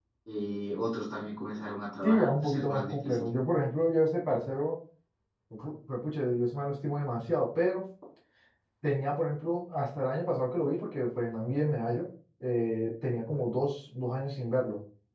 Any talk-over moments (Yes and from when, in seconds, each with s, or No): Yes, from 2.0 s